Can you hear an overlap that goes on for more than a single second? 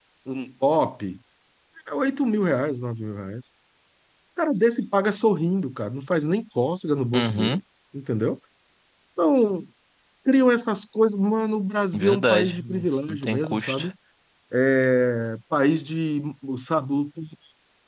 Yes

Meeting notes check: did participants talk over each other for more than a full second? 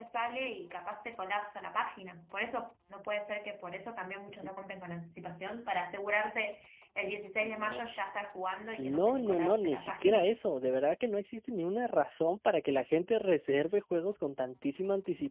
Yes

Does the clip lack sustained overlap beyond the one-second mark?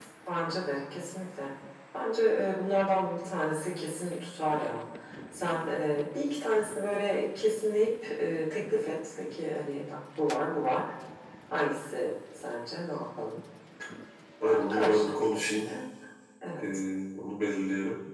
No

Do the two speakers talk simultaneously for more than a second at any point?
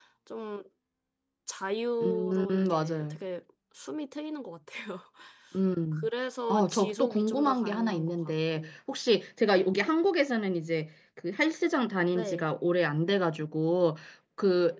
Yes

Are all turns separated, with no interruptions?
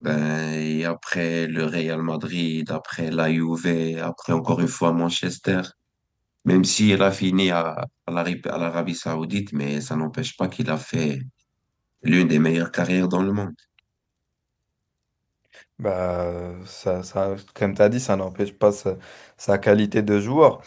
Yes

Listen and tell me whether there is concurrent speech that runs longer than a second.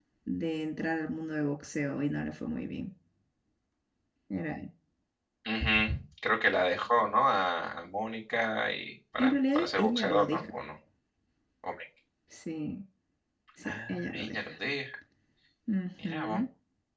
Yes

